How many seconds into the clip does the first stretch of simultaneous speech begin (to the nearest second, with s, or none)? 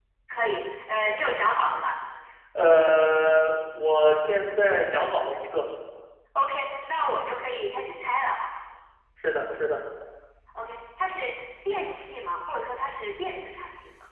none